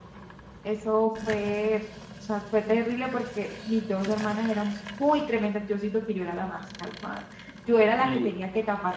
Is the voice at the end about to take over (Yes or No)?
No